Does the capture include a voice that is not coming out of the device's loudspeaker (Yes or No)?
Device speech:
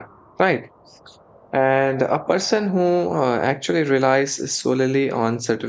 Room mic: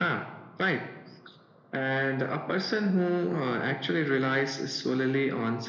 No